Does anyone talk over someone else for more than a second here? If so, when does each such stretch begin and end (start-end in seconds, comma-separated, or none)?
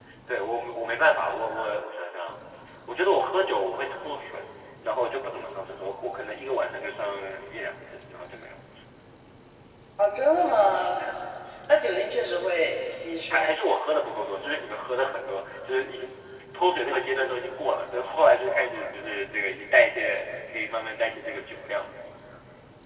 none